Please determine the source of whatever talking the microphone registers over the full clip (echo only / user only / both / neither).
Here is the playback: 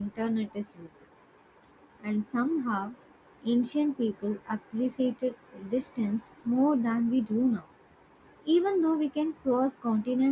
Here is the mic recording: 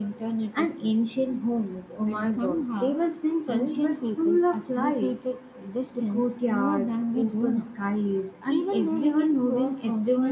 both